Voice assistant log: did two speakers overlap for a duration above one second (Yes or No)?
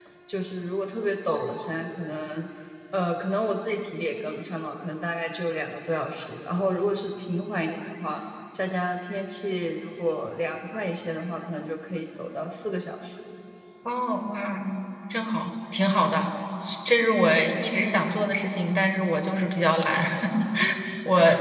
No